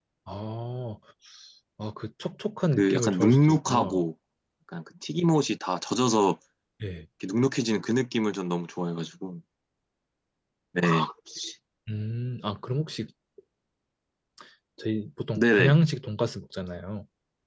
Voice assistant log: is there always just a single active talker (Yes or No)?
No